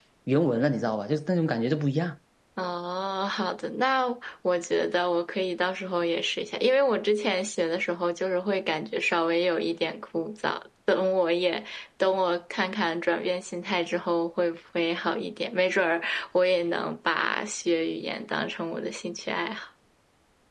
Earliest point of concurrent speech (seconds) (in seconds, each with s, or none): none